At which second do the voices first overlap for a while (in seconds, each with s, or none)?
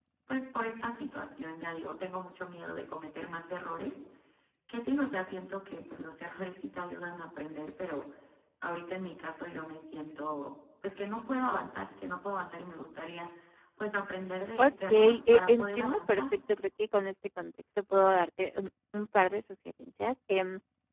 14.6 s